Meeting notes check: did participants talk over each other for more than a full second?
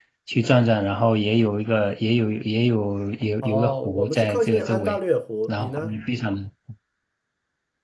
Yes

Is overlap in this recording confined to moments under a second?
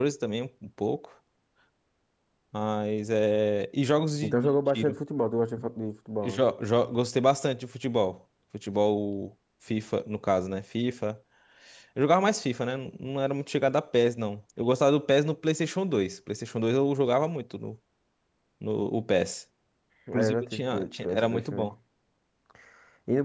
No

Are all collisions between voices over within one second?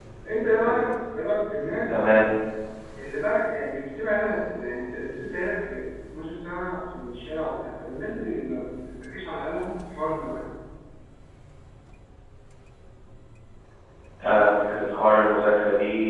Yes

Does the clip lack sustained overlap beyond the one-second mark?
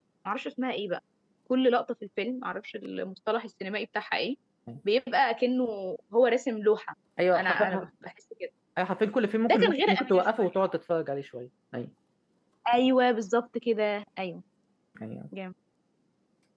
No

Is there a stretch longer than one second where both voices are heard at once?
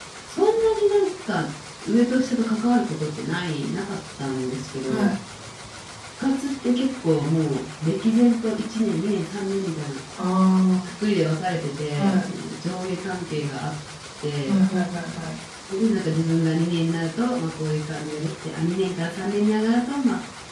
No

